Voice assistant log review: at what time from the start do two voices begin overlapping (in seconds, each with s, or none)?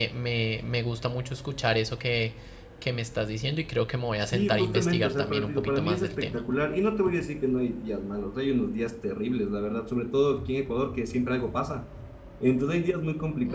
4.3 s